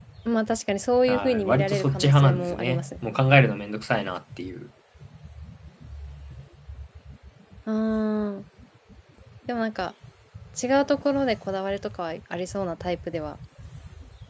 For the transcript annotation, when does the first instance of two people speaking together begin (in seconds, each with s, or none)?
1.1 s